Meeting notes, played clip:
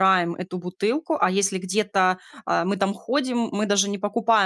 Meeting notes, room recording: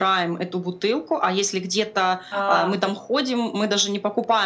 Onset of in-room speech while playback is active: 2.3 s

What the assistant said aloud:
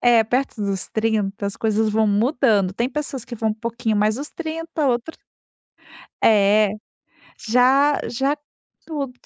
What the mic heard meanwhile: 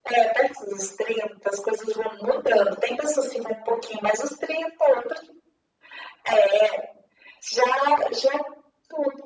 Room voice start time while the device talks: none

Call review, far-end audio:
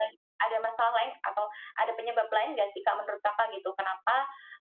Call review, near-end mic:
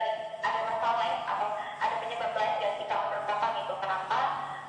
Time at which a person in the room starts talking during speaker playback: none

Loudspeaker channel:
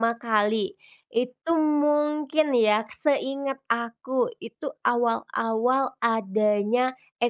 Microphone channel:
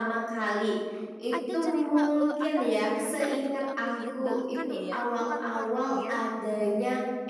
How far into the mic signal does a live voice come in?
1.3 s

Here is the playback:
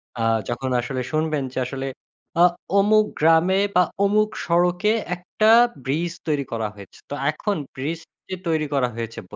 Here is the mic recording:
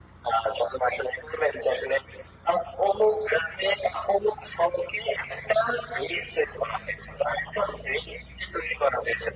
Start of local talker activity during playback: none

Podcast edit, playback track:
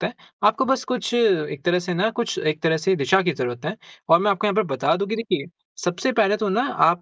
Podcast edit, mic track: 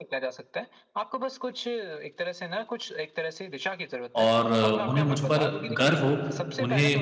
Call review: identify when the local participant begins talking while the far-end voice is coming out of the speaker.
4.2 s

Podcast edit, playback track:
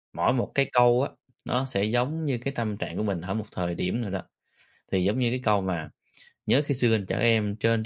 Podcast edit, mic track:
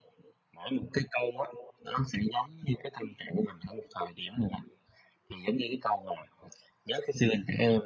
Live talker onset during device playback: none

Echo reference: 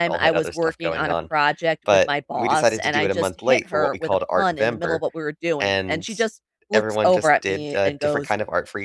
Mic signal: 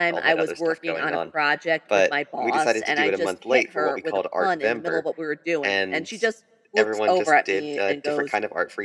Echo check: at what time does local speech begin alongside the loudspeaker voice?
none

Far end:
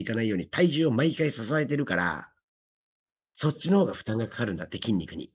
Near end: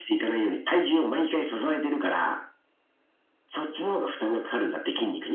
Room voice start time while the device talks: none

